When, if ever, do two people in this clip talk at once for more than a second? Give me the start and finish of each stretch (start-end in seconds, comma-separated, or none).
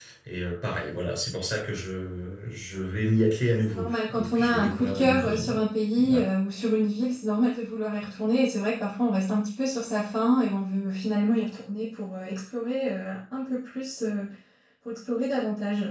3.7-5.6